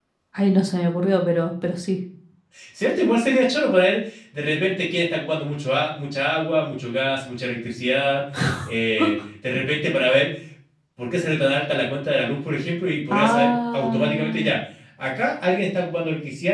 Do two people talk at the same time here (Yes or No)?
Yes